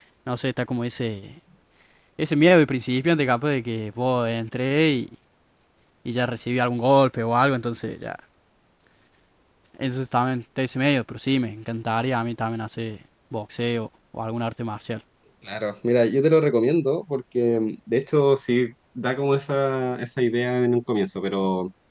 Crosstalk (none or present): none